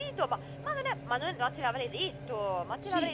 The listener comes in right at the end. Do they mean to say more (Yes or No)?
Yes